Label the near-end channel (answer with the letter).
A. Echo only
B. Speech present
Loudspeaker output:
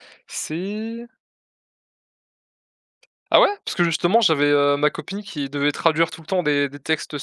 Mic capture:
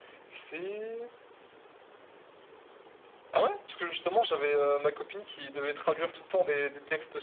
B